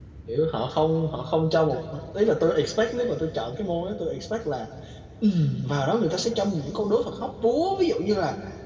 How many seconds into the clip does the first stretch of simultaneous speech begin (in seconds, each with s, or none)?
none